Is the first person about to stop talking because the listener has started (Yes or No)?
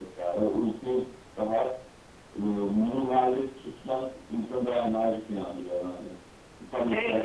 Yes